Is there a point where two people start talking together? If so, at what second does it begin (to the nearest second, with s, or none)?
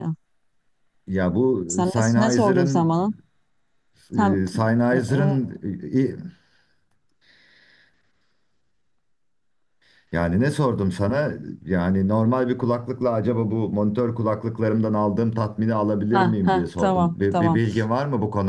2 s